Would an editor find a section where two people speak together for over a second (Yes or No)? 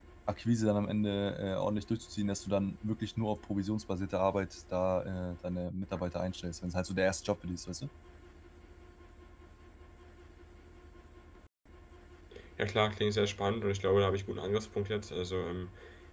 No